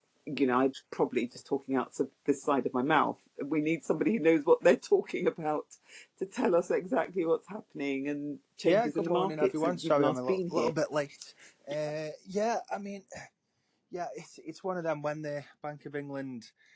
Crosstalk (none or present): present